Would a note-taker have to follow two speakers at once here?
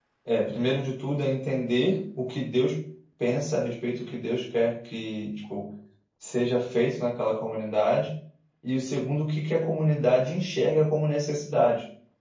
No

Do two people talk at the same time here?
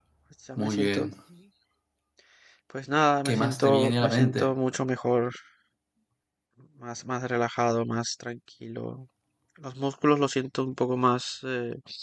Yes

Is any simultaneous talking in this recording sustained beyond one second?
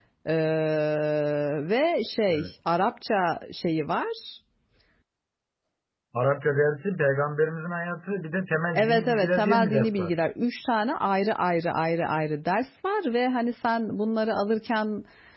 Yes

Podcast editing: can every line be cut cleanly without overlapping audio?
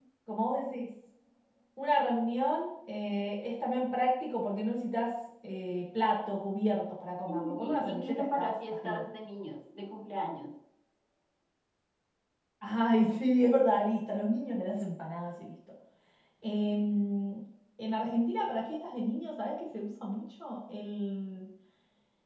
No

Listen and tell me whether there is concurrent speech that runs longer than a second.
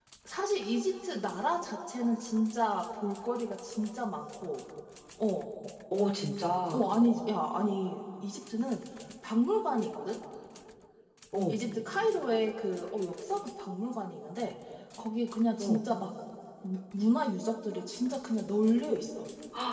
No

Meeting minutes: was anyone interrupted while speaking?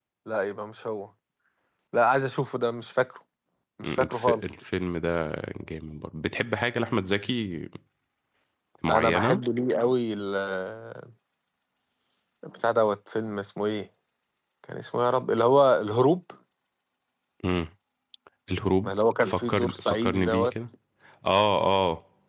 Yes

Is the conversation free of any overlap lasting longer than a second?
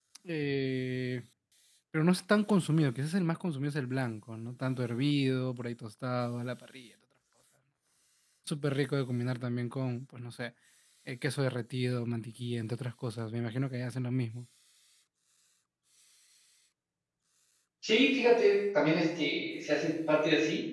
Yes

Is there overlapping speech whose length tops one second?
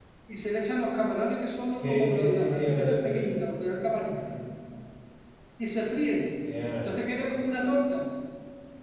Yes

